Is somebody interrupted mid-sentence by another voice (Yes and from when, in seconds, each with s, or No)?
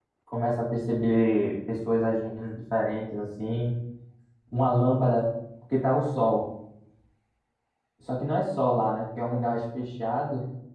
No